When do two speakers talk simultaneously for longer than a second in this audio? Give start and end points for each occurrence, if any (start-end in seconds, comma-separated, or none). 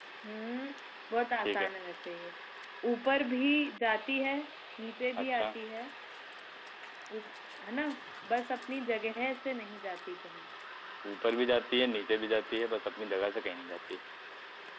none